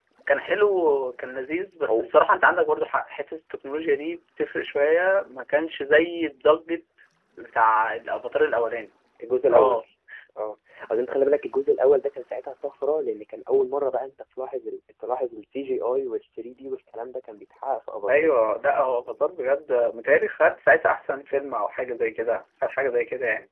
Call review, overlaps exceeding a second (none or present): none